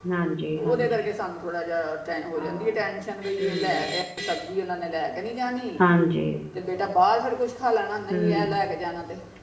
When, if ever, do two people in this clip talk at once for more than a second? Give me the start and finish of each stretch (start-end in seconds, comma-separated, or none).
none